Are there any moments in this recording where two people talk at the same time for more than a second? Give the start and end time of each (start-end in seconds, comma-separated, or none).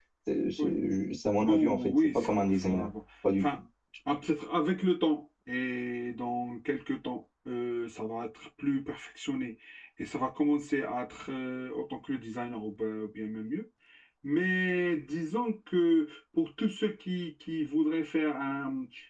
1.4-2.9